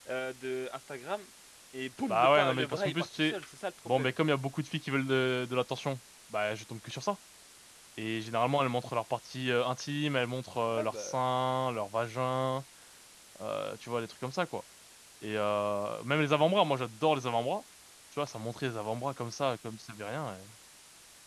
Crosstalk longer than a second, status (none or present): present